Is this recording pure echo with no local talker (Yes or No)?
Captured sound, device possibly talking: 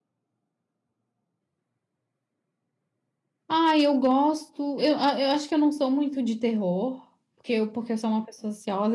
No